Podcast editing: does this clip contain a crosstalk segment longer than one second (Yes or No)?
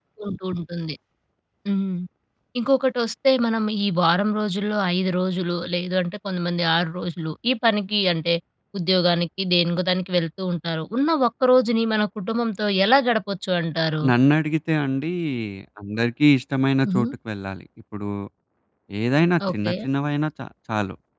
No